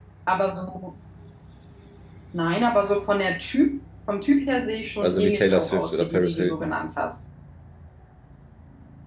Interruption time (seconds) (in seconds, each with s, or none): 5.0 s